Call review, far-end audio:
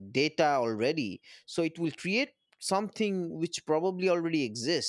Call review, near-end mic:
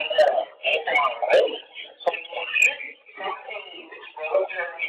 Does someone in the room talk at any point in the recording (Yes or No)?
No